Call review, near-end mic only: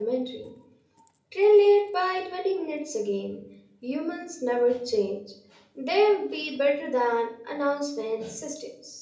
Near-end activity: present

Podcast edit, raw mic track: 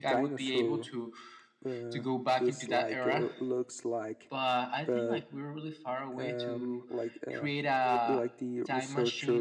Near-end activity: present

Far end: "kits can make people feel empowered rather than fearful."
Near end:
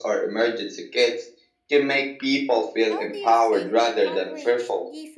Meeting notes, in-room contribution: present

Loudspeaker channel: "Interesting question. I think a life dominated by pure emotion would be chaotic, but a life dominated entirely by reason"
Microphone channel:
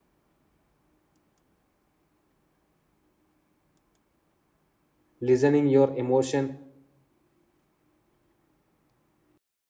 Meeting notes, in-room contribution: present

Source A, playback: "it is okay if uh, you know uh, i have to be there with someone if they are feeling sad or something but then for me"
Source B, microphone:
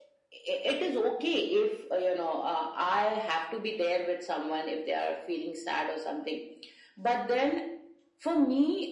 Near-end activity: none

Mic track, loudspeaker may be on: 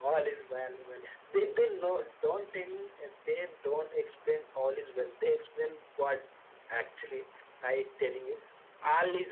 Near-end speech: none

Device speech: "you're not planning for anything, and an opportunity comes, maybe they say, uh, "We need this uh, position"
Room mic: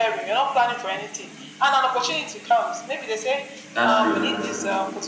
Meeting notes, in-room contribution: present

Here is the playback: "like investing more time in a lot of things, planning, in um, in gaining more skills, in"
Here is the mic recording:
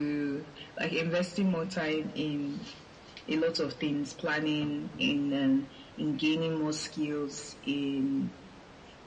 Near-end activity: none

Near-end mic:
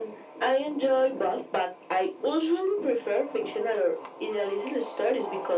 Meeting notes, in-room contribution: none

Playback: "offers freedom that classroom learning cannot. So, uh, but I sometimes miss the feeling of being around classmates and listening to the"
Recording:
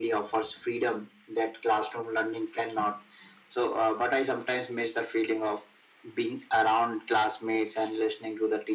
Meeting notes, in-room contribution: none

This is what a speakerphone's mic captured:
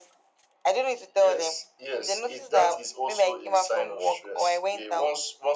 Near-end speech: none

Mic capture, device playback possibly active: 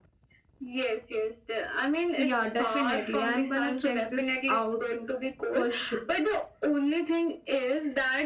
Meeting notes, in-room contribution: present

